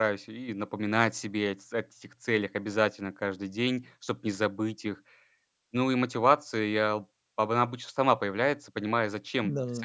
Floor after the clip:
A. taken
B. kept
B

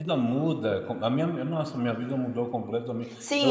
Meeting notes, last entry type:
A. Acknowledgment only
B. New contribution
B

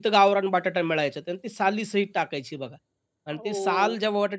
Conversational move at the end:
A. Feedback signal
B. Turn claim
A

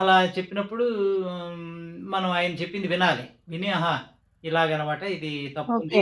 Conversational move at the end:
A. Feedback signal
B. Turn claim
B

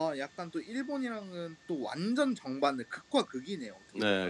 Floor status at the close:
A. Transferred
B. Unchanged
A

